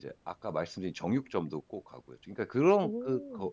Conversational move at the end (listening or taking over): listening